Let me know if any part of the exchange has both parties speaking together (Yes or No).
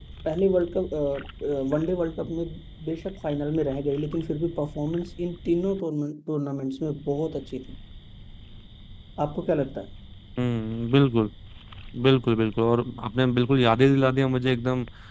No